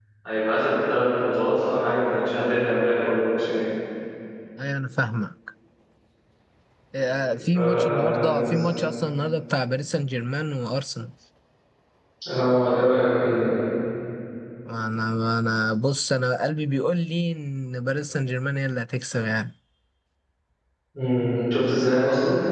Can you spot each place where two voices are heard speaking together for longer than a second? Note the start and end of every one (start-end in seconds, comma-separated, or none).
7.0-8.5